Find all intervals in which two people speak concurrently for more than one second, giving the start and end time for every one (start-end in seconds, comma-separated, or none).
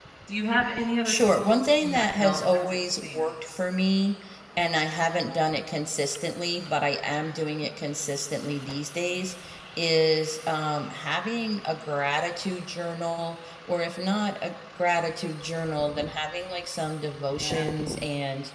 1.1-3.6